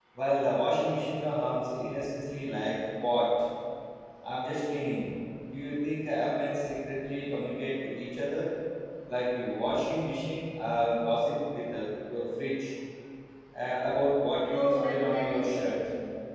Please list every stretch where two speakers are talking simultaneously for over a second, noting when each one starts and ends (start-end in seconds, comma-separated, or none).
14.5-15.8